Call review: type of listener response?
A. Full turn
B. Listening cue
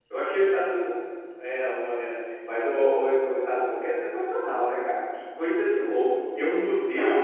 B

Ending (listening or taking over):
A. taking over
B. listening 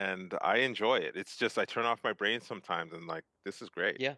A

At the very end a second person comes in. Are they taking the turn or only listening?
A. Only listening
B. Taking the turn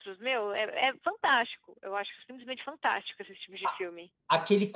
B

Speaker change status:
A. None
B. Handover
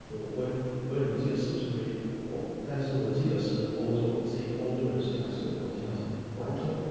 B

